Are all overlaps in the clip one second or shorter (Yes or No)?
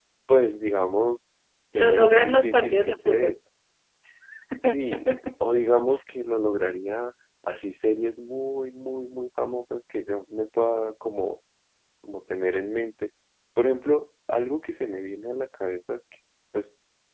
No